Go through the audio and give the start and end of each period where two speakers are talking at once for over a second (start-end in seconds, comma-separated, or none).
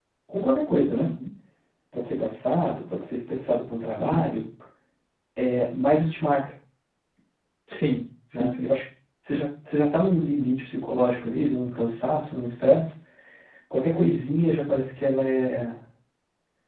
none